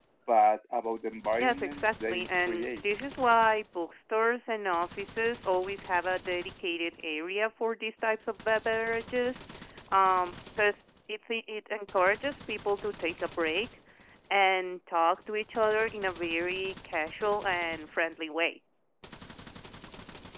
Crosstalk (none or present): present